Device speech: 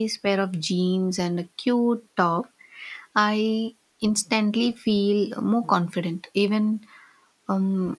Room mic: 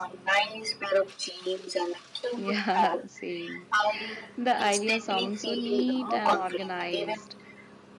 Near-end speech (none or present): present